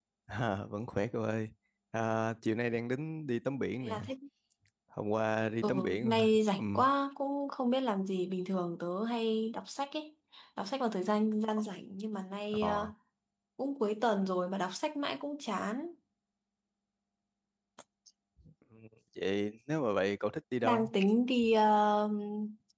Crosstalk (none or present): present